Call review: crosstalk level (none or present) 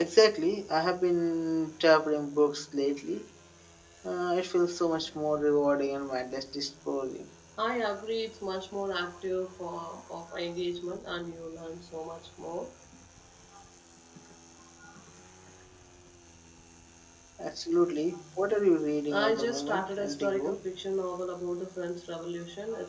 present